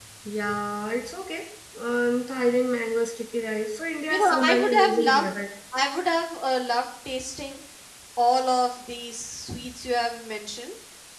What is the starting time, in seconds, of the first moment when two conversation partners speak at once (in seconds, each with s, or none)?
4.1 s